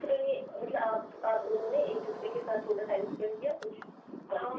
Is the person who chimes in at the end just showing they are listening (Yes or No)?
No